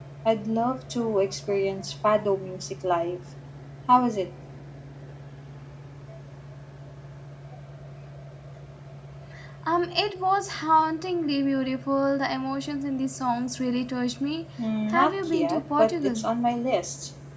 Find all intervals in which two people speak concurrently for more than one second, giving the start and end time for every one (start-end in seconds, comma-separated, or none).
14.9-16.2